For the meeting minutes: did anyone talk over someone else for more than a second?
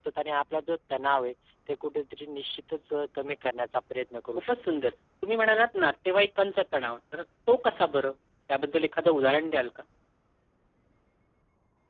No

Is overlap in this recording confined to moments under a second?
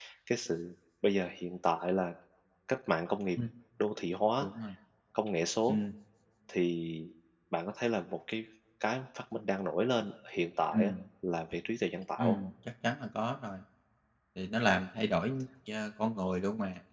Yes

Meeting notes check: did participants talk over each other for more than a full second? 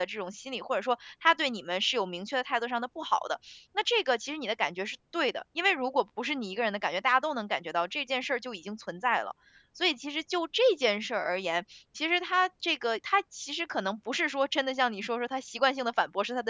No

